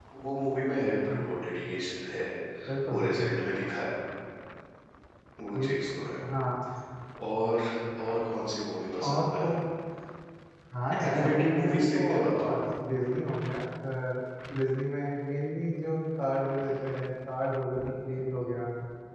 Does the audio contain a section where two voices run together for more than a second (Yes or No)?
Yes